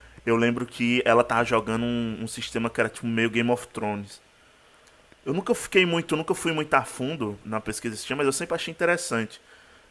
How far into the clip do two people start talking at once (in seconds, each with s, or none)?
none